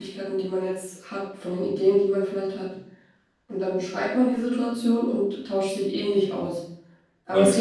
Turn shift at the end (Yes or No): No